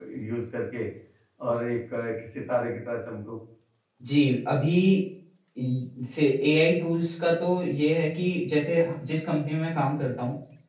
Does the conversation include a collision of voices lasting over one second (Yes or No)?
No